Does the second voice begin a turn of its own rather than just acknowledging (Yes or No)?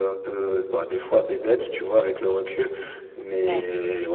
No